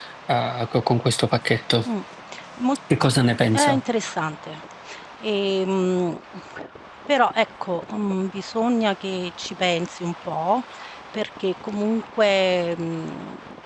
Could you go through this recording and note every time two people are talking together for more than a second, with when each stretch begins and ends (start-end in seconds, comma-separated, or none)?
none